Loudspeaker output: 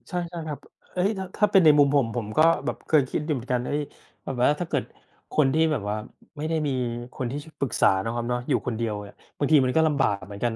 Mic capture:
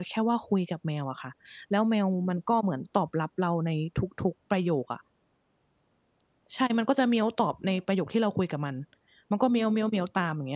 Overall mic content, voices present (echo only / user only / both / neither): user only